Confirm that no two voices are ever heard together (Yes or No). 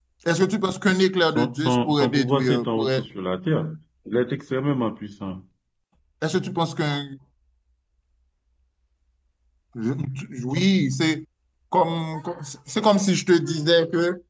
No